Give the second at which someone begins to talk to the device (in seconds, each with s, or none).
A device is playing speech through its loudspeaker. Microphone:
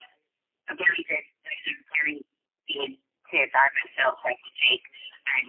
none